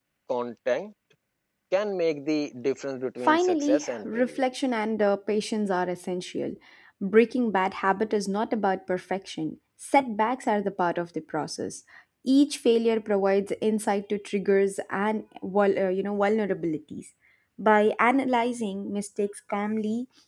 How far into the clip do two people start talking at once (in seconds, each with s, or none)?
3.2 s